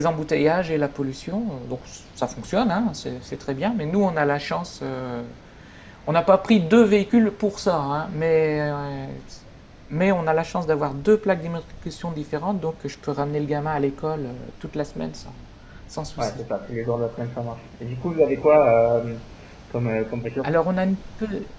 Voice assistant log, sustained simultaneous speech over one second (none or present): none